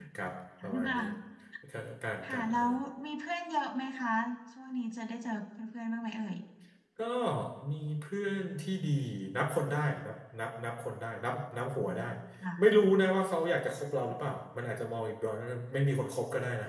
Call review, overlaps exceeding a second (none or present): none